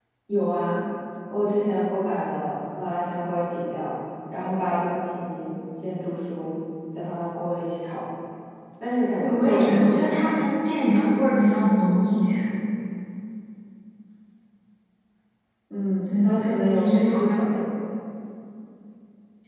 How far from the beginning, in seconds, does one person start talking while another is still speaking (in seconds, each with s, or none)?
9.2 s